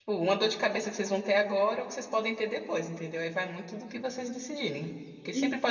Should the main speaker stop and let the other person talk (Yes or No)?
No